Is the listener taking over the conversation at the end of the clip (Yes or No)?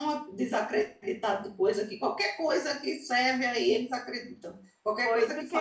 Yes